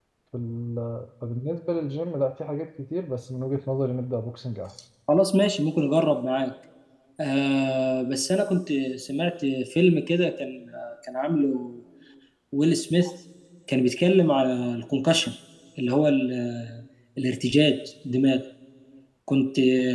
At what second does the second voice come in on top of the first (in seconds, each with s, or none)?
none